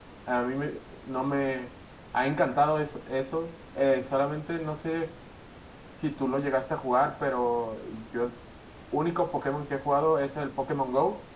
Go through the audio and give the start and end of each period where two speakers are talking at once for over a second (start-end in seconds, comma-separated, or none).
none